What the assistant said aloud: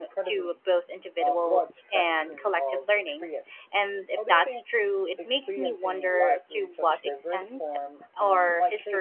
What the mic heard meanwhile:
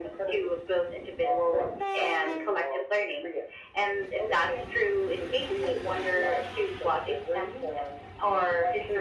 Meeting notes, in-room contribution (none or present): none